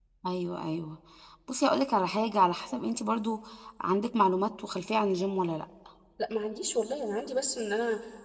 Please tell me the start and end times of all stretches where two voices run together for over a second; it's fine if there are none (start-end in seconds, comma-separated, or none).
none